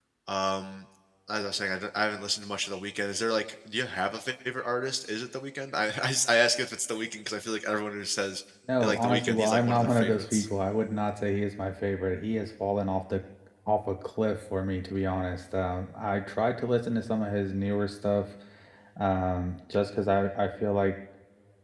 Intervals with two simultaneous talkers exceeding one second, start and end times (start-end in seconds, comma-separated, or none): 8.8-10.5